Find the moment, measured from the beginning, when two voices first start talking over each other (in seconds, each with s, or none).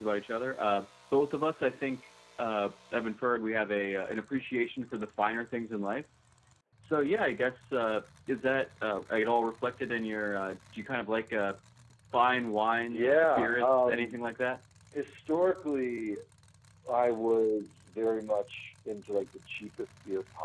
12.9 s